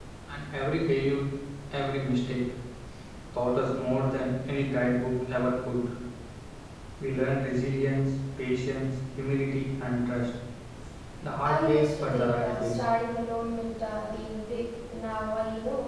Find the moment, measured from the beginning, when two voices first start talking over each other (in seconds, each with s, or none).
11.5 s